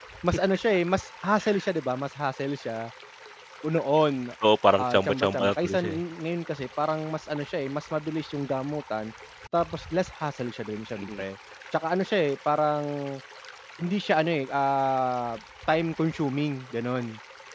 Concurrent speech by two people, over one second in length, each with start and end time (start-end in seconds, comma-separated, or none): 4.8-6.0